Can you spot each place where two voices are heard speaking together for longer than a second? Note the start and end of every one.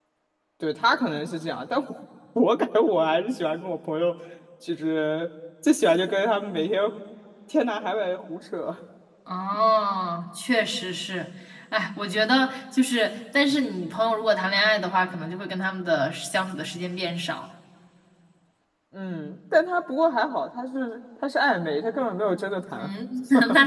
none

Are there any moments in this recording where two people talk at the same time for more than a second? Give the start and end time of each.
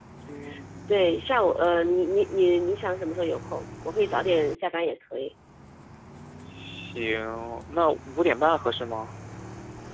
none

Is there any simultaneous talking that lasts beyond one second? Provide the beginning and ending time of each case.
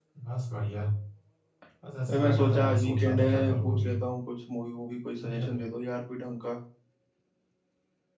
2.1-3.9

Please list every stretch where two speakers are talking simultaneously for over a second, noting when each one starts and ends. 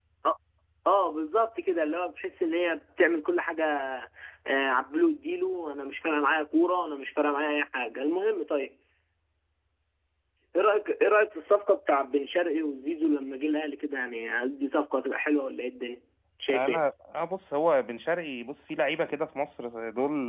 none

